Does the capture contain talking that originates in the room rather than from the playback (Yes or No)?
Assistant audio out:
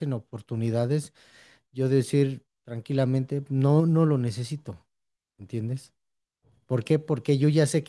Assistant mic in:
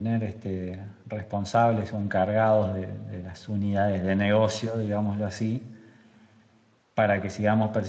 Yes